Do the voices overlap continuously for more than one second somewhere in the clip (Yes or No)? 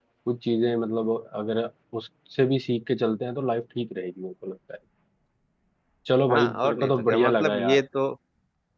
Yes